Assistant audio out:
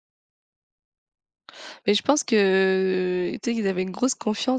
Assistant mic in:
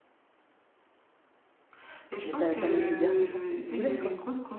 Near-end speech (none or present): present